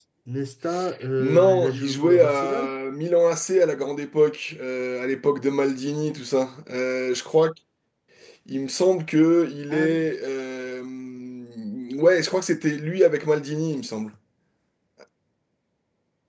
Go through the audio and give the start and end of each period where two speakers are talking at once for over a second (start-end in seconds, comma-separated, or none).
1.2-2.7